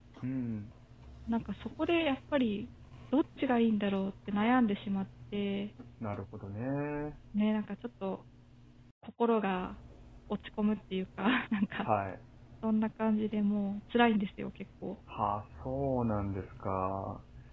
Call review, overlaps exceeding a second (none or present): none